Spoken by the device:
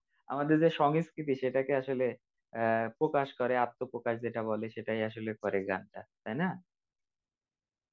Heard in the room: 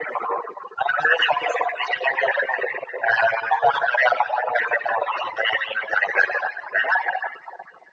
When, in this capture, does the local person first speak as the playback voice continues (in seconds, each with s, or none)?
none